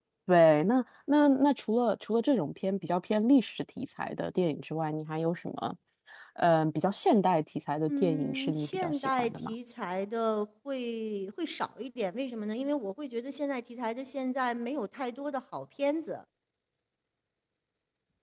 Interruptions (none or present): present